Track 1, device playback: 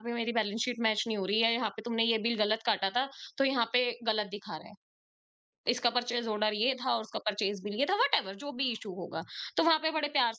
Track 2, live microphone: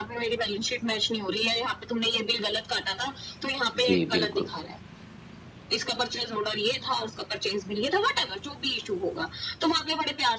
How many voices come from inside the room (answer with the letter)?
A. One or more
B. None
A